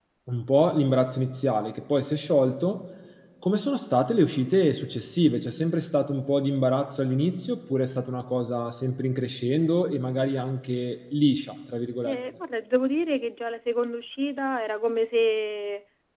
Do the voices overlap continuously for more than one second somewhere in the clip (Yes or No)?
No